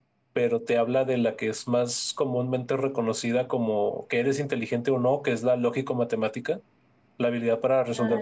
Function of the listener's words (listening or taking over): listening